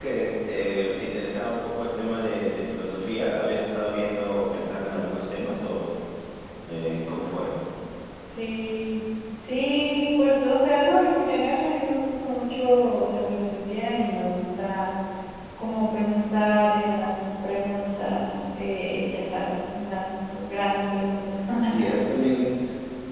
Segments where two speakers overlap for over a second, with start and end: none

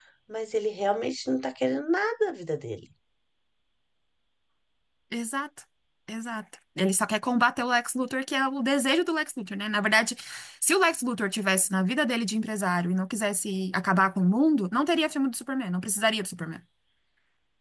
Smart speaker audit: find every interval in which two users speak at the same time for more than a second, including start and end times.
none

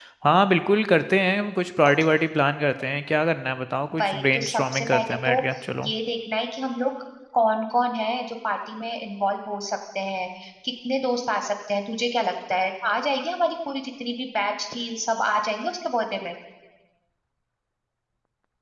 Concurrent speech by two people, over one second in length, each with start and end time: 4.0-5.3

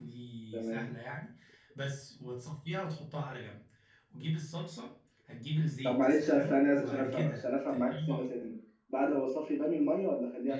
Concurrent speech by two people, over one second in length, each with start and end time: 5.8-8.2

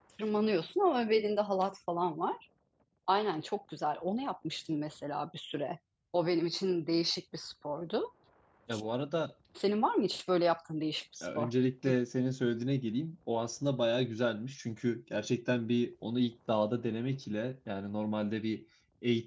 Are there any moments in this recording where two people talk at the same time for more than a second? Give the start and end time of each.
none

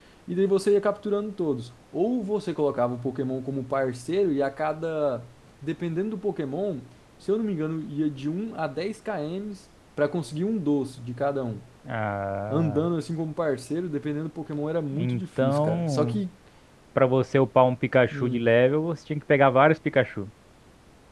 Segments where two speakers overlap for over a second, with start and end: 14.9-16.2

